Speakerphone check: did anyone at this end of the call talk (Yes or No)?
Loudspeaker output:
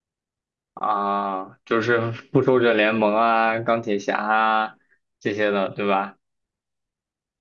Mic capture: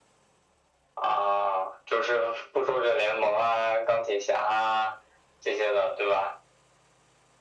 No